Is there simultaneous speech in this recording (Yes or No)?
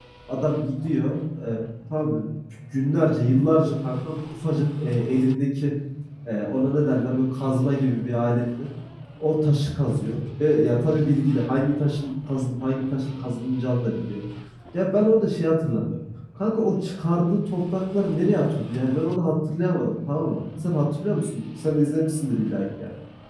No